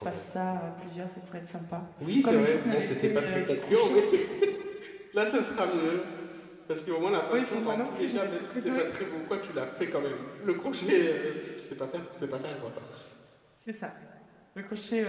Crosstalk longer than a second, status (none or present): present